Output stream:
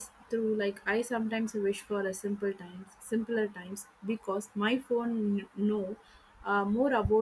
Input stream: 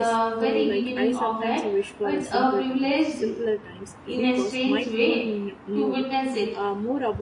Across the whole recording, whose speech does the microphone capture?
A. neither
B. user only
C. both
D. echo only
C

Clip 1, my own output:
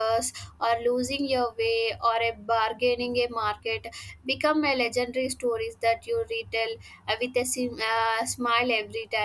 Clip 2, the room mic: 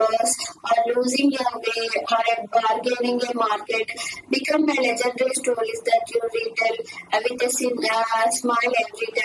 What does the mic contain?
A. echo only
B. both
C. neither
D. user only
A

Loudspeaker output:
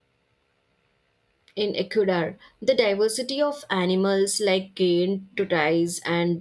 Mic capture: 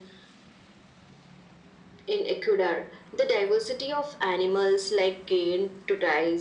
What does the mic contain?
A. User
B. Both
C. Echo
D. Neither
C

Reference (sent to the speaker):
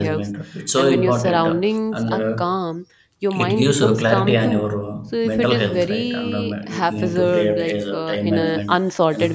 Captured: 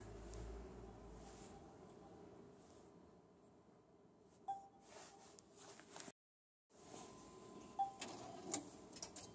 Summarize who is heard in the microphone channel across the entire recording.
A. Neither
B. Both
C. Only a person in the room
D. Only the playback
A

